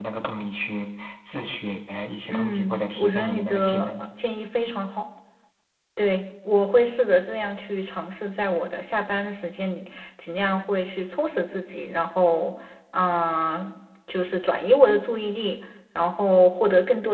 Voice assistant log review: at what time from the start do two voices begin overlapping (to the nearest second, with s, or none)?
2 s